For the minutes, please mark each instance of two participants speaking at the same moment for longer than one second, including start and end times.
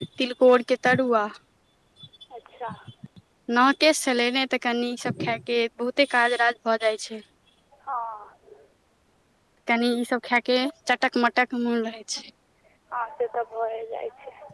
none

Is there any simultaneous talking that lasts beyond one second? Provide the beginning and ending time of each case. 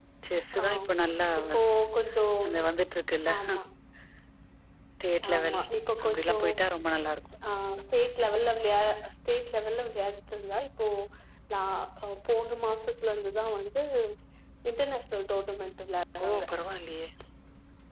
none

